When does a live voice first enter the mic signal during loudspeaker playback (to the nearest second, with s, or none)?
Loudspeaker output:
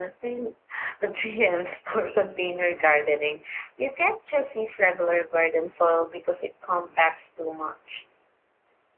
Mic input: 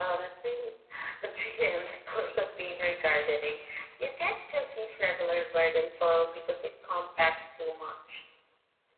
none